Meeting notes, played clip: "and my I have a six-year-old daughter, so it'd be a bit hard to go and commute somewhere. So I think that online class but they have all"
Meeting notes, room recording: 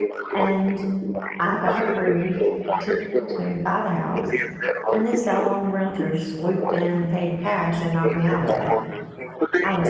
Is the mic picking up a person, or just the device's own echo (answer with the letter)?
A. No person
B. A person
B